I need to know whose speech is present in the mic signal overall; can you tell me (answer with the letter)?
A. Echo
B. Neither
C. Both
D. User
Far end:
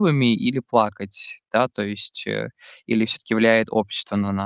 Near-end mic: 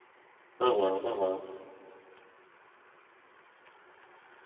D